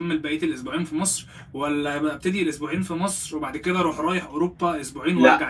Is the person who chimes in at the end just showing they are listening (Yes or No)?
No